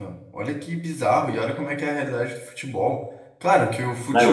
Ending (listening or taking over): listening